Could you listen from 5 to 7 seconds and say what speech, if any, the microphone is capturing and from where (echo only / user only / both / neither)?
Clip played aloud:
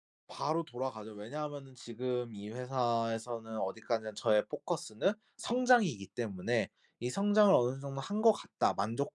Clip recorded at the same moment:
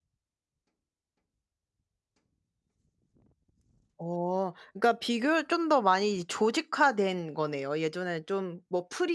user only